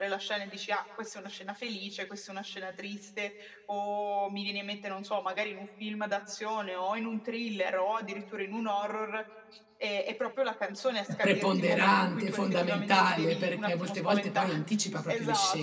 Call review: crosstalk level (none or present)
present